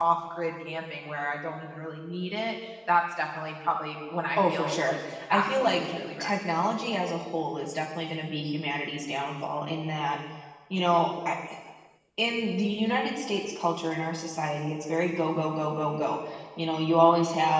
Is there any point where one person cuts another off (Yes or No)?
Yes